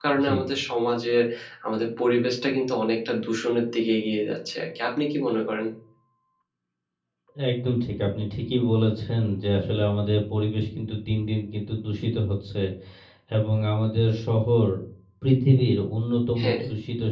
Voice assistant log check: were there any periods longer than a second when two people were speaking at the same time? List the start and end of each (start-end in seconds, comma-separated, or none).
none